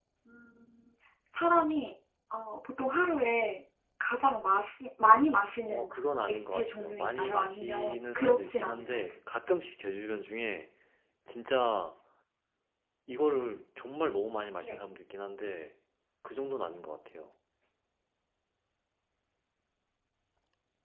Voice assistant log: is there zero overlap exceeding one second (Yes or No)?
No